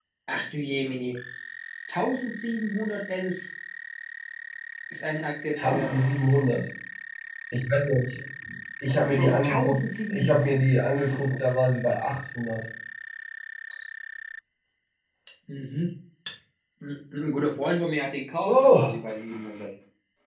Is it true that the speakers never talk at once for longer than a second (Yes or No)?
No